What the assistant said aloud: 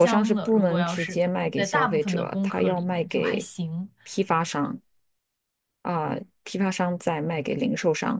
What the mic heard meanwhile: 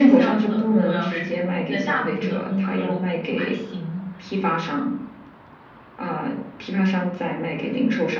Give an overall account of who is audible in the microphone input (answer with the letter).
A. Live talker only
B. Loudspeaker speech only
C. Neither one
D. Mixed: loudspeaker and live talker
B